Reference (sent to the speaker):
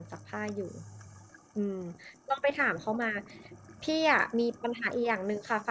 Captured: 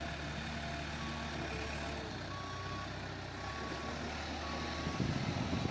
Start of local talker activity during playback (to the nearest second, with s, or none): none